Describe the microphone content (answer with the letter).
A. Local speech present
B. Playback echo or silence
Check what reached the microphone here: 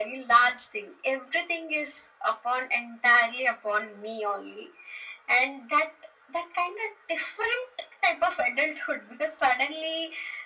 B